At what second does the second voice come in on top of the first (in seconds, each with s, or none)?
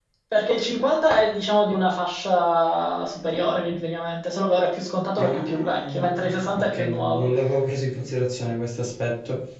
5.2 s